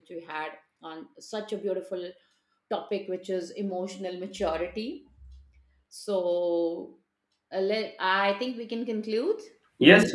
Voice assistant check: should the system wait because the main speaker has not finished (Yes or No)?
No